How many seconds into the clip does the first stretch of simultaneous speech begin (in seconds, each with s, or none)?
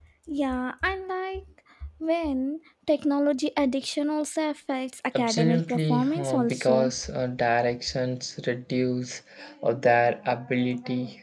5.2 s